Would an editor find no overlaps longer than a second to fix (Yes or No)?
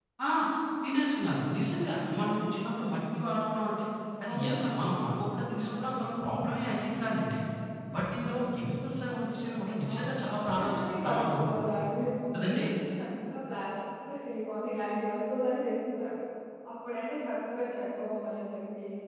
No